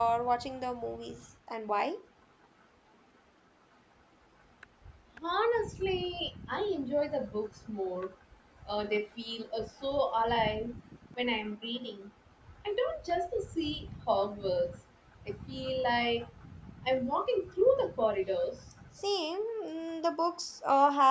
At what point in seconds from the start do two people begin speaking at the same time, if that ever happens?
none

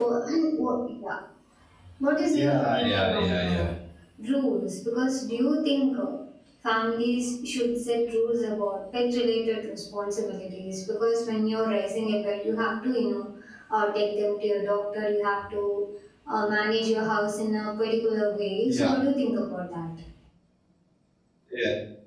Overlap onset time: 2.3 s

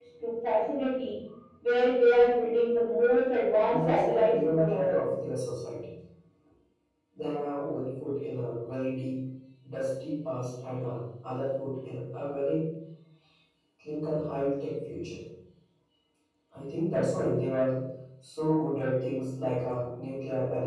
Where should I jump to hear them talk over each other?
3.7 s

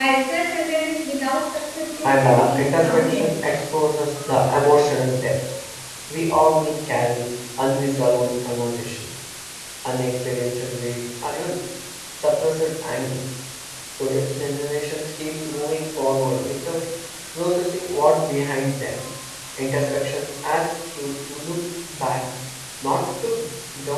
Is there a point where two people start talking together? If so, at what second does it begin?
1.9 s

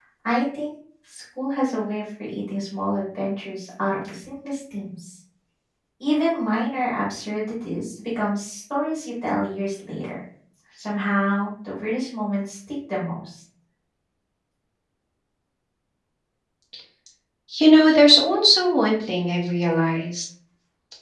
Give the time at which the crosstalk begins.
none

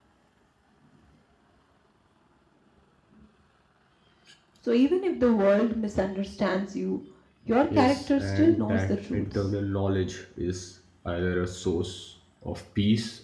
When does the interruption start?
7.7 s

